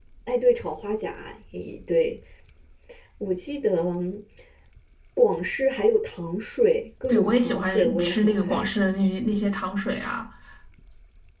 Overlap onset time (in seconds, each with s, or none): 7.1 s